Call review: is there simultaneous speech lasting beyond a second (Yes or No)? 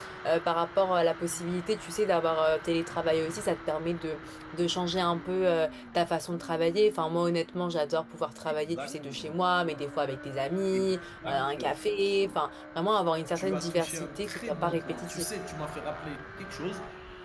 Yes